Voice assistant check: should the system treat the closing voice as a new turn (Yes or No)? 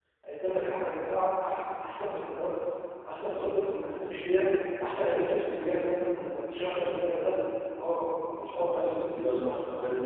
Yes